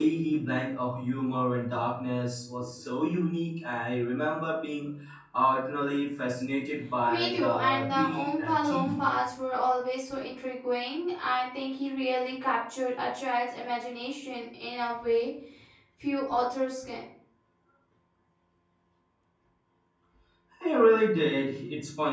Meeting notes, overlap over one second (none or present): present